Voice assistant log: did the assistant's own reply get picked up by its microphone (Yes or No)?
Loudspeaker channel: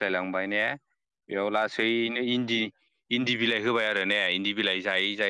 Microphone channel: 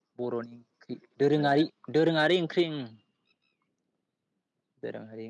No